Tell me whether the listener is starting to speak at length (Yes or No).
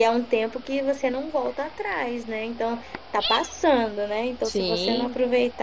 No